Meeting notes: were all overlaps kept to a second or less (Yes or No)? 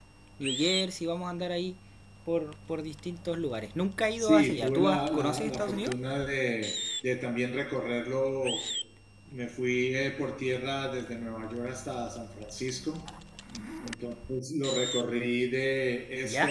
No